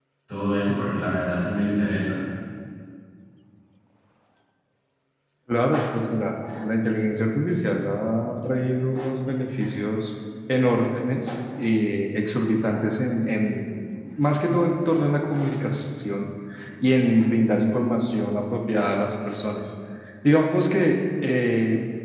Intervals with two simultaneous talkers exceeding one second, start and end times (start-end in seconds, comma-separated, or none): none